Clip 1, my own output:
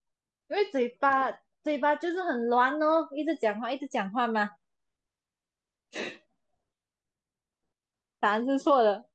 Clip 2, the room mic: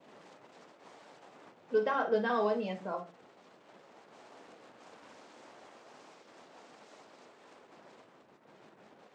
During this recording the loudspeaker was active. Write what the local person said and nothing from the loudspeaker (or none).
轮到轮到我问你的时候，